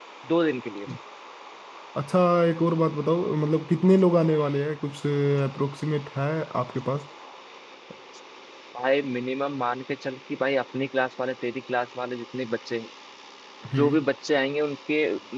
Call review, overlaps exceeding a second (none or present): none